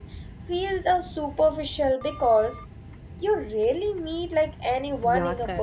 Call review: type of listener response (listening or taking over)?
taking over